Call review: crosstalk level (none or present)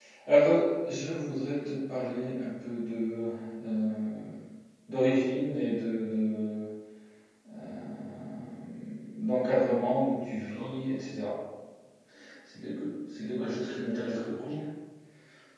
present